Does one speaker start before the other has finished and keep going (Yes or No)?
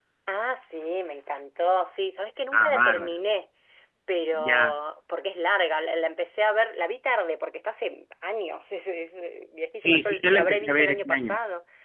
Yes